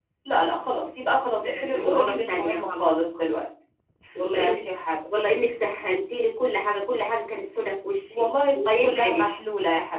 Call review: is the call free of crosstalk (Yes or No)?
No